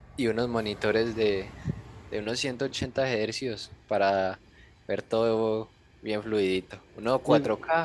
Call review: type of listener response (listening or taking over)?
listening